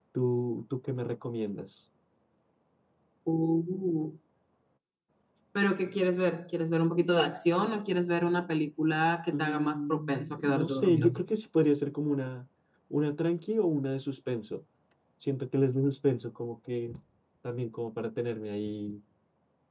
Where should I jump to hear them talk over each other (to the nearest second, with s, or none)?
9 s